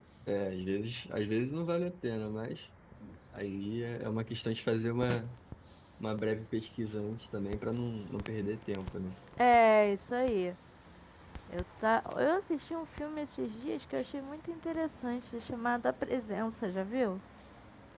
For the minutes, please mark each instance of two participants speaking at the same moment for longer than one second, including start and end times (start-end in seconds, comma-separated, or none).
none